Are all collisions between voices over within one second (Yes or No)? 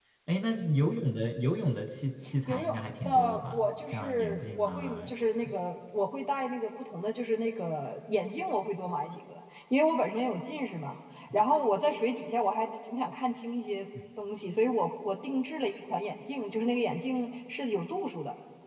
No